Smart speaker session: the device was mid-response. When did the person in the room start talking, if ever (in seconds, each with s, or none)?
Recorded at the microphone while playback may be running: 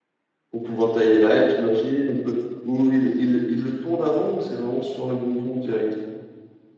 0.5 s